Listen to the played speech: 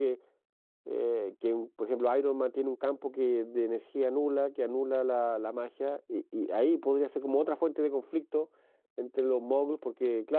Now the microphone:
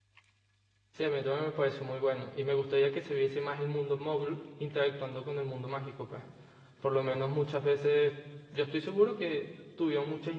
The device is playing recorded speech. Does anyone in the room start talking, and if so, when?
0.9 s

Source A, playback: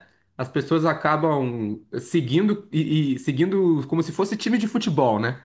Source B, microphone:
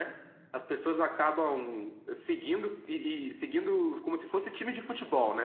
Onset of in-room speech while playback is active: none

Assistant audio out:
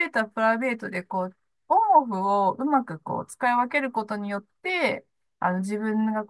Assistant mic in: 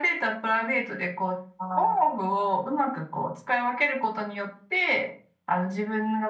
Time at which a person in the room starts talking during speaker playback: 1.6 s

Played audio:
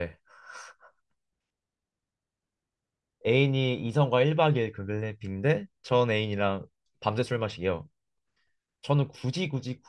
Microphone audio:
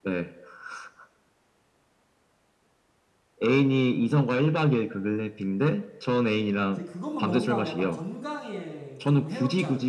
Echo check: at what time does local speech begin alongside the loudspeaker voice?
6.7 s

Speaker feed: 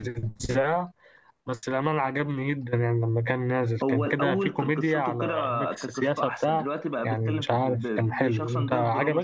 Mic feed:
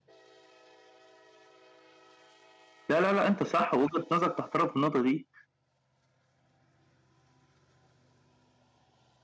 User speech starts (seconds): 2.9 s

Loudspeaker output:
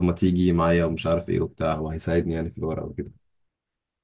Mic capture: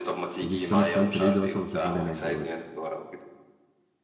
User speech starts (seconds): 0.4 s

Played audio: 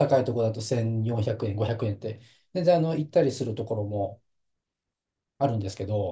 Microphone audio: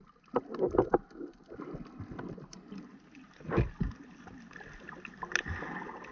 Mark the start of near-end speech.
none

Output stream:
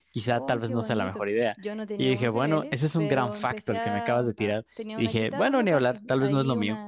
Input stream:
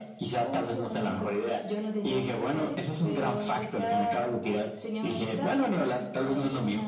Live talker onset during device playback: none

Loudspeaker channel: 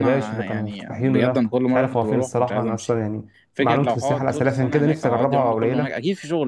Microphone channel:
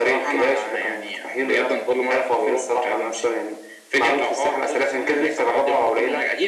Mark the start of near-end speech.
none

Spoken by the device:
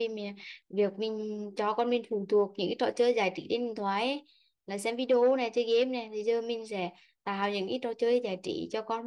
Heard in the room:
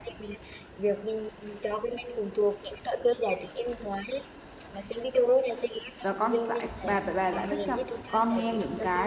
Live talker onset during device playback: 6.0 s

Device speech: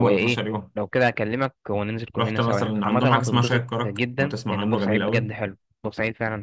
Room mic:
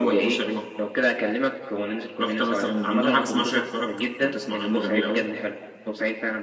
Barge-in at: none

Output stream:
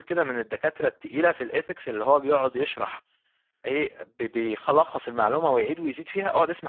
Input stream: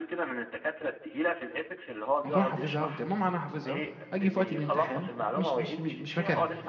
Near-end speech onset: 2.2 s

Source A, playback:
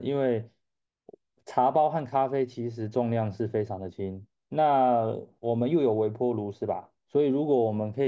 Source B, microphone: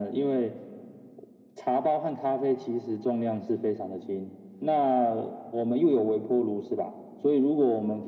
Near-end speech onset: none

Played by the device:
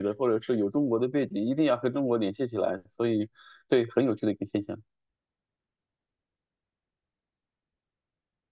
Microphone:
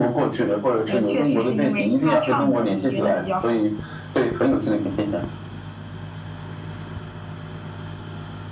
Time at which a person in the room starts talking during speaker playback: 0.8 s

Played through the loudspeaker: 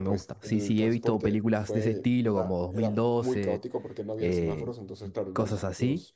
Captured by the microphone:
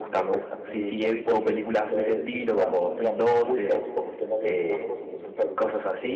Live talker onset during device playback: none

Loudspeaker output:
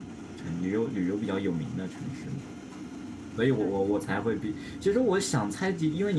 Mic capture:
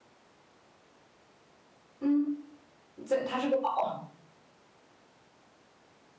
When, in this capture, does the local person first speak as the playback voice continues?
2.0 s

